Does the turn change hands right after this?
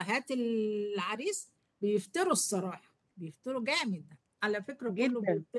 No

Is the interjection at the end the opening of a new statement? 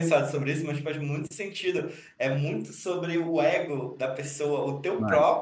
No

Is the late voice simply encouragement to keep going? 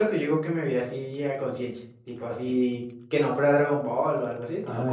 No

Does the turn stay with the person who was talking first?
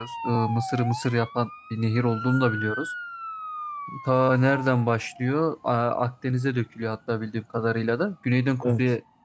Yes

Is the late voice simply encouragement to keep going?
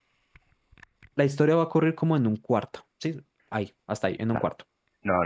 No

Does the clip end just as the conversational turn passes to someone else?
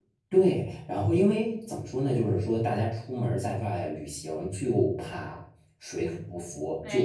No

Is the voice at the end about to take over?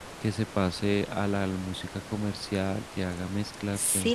Yes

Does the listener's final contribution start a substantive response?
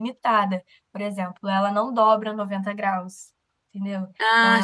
No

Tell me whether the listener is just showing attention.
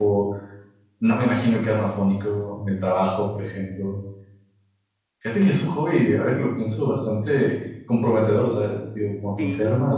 Yes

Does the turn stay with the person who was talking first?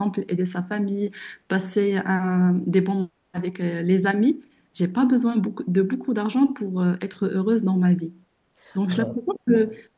Yes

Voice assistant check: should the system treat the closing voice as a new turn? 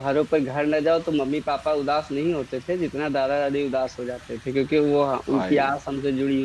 No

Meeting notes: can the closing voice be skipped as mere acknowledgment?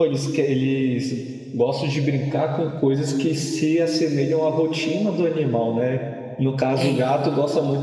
Yes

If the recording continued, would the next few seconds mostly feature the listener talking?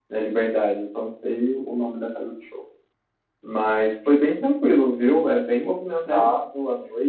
No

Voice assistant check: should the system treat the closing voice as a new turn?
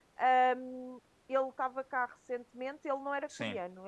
No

